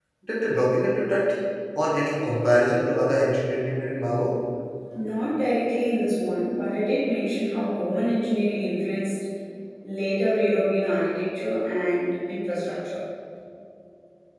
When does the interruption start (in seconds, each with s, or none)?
none